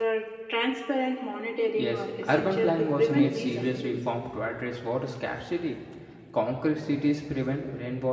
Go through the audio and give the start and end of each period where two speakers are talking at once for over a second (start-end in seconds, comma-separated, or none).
1.8-4.0